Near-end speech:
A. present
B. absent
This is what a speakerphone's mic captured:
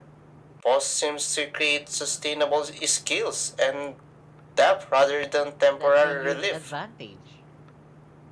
A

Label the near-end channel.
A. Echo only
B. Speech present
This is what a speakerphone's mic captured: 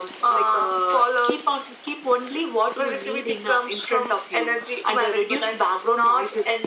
A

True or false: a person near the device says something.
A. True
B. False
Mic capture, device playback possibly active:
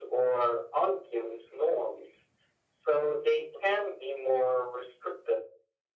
B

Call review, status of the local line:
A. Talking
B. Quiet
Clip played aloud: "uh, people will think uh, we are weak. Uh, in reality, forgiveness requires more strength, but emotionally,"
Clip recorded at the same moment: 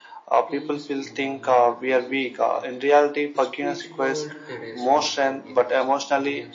A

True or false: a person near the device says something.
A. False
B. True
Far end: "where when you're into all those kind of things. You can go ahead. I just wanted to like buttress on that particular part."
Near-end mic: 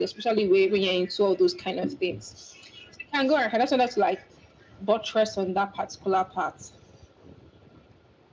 A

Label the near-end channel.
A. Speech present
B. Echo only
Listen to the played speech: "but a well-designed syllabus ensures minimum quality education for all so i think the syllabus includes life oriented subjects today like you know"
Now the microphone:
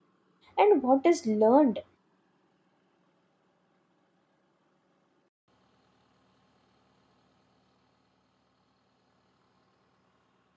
A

